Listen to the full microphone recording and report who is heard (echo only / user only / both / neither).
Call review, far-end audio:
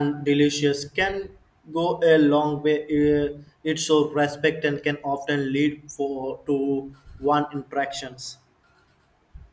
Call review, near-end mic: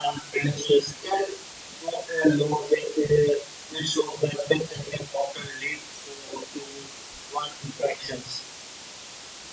echo only